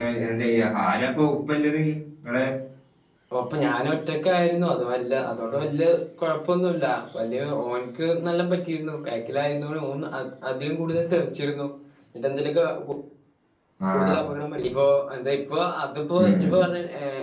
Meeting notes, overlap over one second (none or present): none